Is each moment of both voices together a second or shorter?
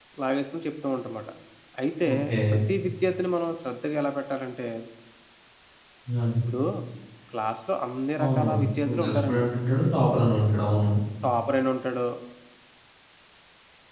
No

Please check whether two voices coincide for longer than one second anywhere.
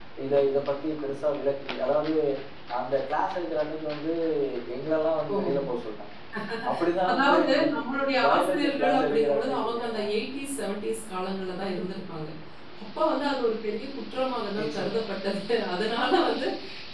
Yes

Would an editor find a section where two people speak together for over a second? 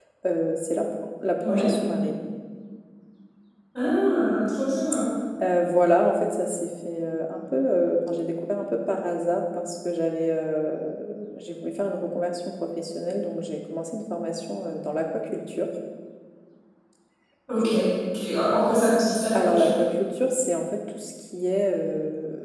No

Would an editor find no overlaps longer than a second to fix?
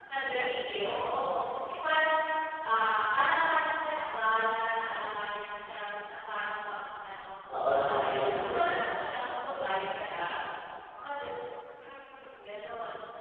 No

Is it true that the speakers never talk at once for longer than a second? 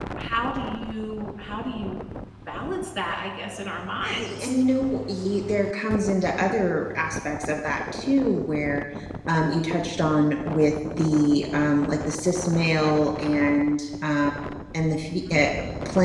Yes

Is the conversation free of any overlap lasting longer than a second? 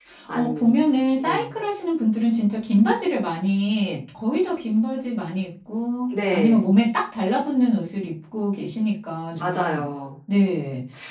Yes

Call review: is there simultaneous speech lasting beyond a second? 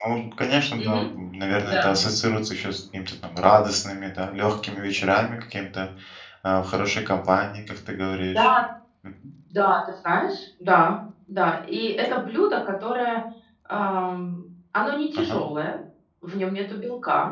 No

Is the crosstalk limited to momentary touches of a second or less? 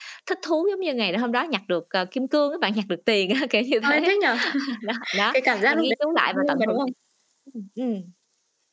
No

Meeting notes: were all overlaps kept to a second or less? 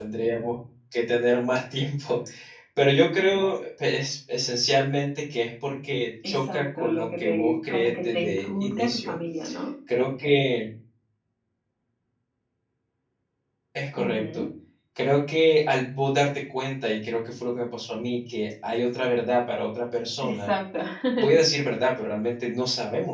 No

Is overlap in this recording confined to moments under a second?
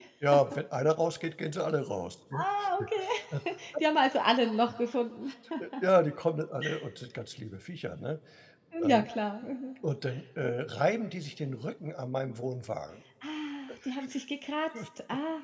Yes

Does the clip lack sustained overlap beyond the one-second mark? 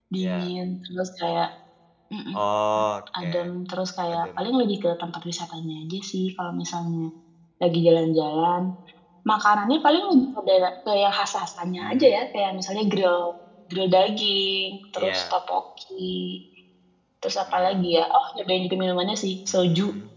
Yes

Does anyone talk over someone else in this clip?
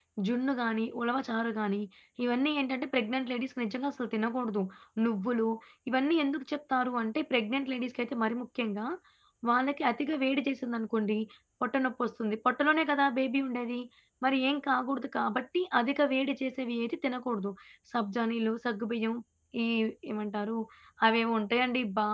No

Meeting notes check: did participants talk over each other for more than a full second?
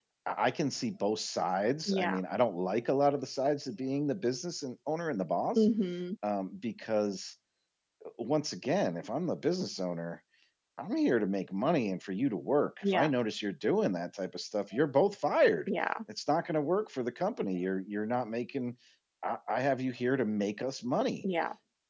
No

